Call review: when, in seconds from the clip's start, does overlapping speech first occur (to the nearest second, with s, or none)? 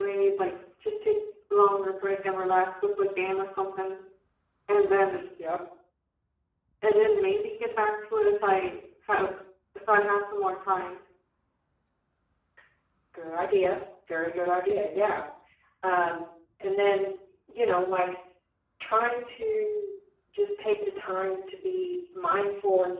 none